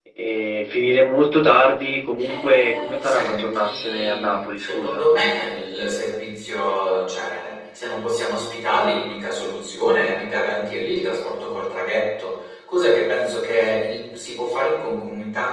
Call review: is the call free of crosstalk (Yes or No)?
No